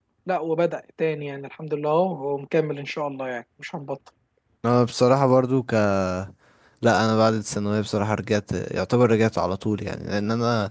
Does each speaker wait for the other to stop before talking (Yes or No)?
Yes